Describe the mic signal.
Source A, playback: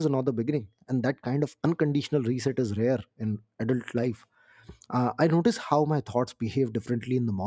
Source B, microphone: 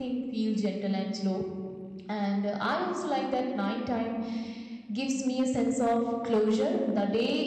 user only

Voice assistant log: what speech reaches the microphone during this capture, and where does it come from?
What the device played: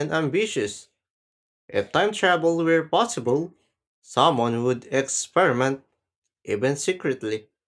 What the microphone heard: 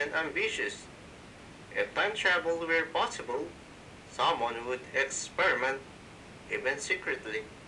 echo only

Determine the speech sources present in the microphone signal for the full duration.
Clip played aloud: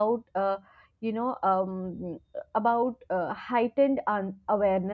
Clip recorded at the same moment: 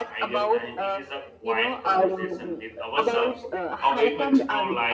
both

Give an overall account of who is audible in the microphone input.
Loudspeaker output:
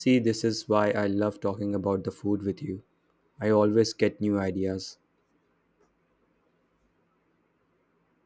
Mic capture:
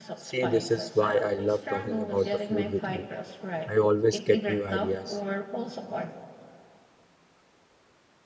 both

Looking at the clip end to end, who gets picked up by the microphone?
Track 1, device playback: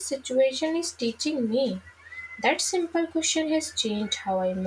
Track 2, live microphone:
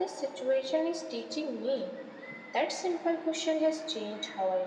echo only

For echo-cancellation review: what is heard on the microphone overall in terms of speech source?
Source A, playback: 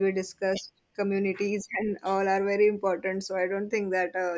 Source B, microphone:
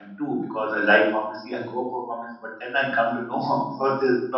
user only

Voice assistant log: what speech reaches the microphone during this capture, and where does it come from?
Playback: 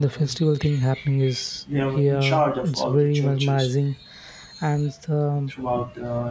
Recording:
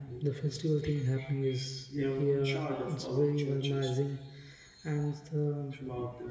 echo only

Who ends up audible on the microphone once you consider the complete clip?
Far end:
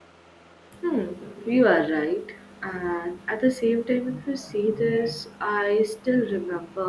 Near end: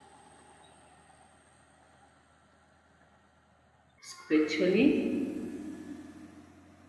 user only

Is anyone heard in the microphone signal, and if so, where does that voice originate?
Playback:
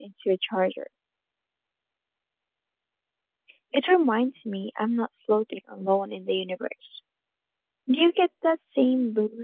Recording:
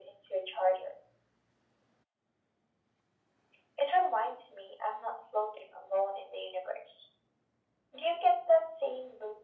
echo only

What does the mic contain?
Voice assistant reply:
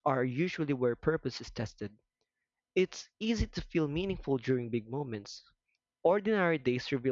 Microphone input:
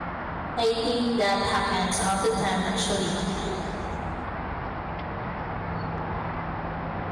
user only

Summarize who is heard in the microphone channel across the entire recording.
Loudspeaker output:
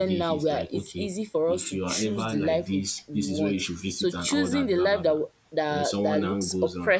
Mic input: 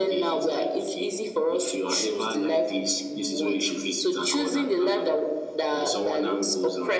echo only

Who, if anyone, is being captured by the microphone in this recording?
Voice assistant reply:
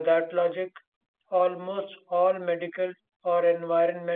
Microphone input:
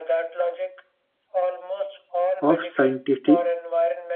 both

